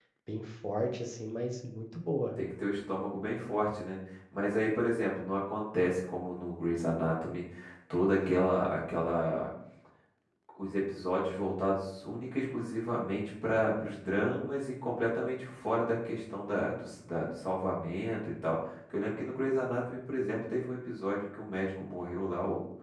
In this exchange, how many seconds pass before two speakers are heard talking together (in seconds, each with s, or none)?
none